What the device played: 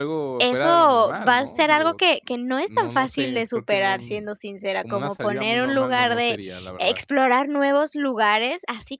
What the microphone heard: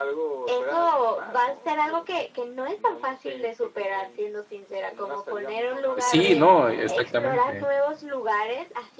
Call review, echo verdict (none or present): present